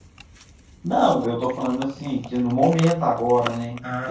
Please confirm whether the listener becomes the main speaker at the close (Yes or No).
Yes